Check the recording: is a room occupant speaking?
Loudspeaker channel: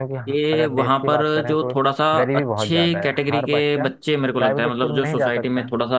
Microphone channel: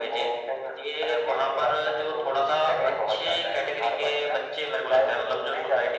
No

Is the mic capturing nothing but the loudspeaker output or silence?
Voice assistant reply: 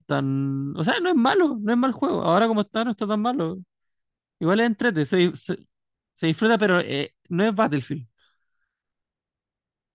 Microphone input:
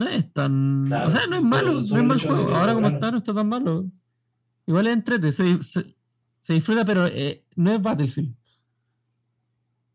No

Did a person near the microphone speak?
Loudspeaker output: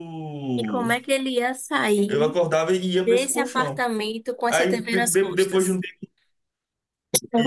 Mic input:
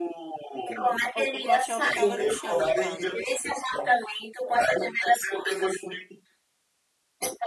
Yes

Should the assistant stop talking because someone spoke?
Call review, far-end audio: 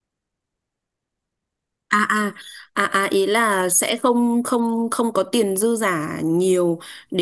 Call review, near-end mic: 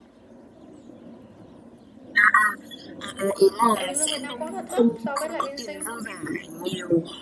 Yes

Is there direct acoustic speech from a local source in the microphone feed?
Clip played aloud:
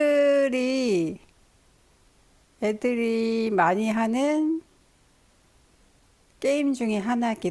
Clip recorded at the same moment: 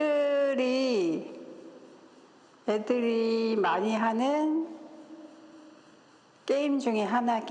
No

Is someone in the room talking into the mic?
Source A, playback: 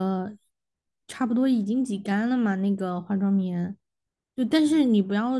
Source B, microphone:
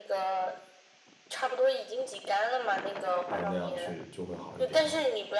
Yes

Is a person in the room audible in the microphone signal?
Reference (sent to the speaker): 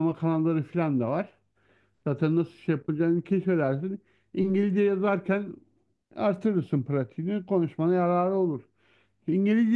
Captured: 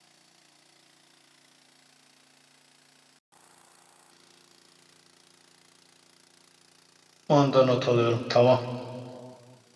Yes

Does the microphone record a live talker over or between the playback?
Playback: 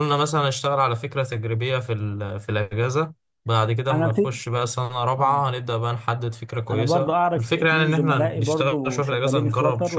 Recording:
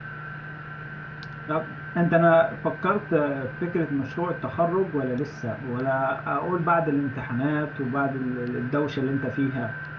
Yes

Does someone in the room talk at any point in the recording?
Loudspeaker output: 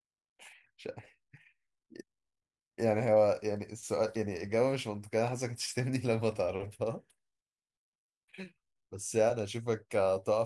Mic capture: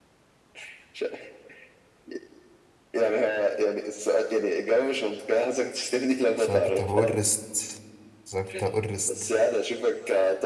Yes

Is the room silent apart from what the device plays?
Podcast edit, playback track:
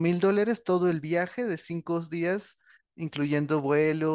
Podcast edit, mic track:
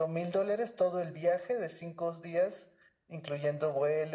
Yes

